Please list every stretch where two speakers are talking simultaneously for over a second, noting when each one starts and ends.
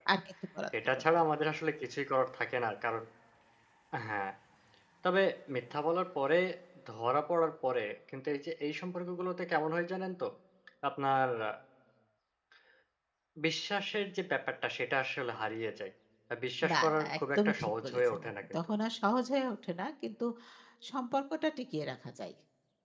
16.7-18.7

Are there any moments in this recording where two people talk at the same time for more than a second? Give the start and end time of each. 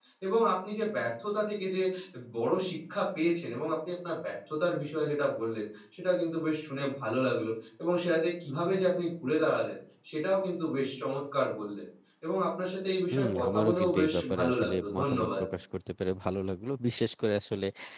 13.1-15.4

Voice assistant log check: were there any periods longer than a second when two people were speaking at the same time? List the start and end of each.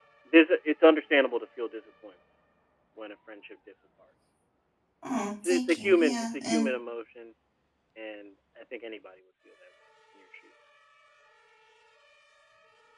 5.4-6.7

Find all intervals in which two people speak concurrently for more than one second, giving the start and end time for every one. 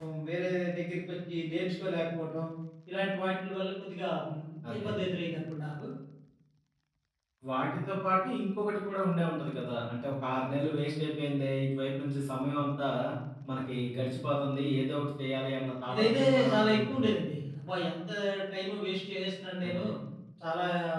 15.9-17.1

